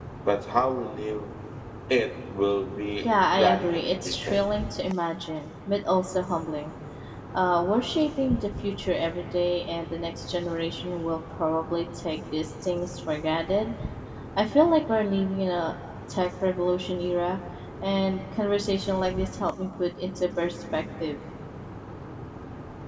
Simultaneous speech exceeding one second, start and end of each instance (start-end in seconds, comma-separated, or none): 3.0-4.4